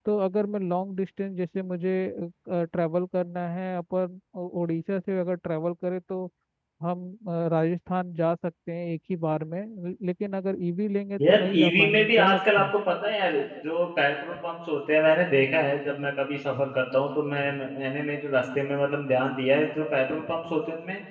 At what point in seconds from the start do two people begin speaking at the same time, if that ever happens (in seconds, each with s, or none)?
11.2 s